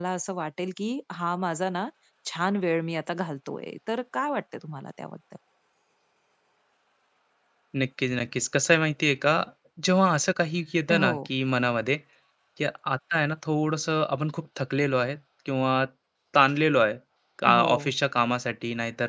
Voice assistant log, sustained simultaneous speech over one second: none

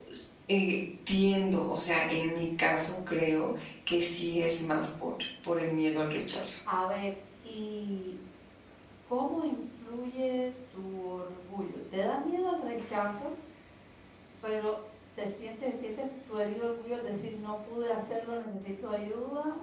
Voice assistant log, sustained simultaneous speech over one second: none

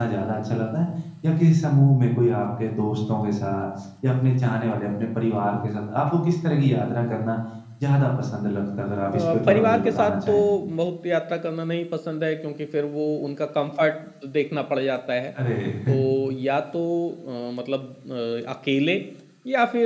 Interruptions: present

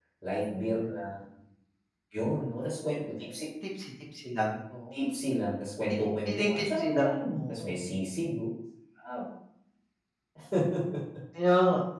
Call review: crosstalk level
present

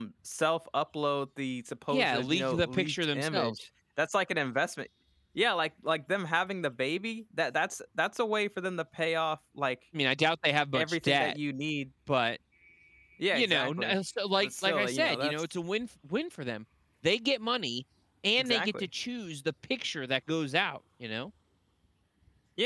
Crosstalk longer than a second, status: present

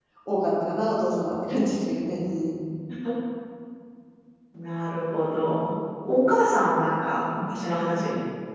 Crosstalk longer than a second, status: none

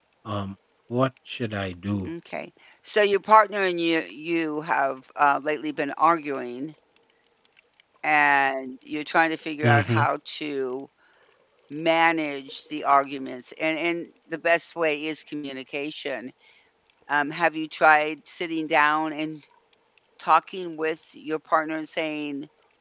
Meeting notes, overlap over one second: none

